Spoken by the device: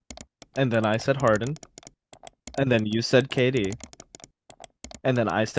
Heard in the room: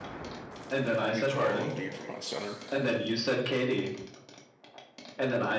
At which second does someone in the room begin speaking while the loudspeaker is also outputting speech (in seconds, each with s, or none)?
1.0 s